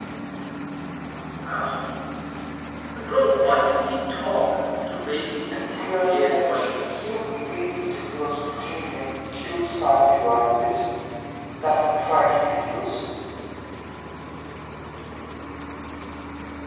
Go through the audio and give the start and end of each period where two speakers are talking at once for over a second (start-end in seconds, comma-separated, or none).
5.5-7.1